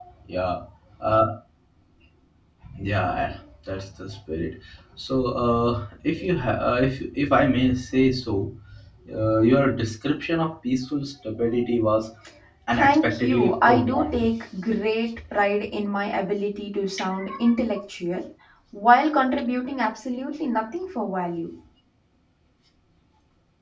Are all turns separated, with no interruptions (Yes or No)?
No